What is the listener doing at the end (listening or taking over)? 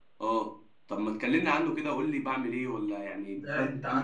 taking over